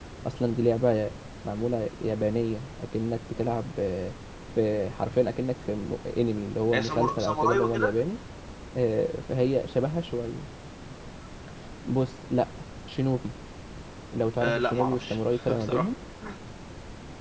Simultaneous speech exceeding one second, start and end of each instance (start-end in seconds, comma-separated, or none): 6.7-7.9, 14.4-15.9